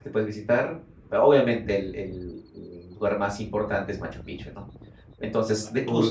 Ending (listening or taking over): listening